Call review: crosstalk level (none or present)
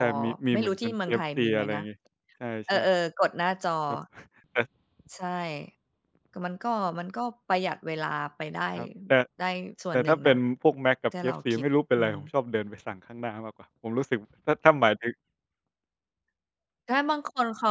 present